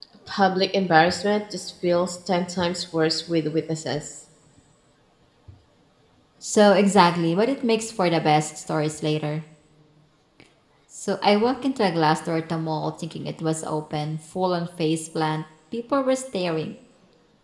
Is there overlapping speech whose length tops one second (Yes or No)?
No